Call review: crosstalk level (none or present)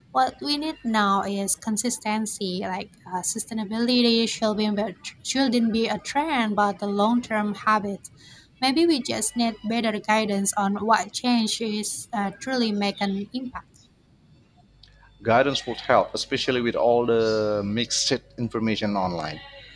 none